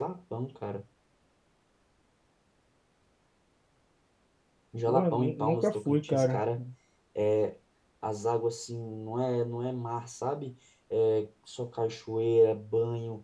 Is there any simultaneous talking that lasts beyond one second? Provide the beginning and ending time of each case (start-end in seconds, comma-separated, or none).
4.9-6.4